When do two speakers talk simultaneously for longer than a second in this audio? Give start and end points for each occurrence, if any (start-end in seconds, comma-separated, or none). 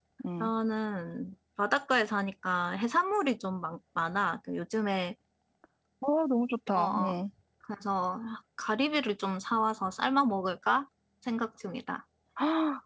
none